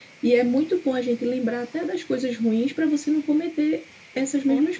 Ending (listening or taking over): taking over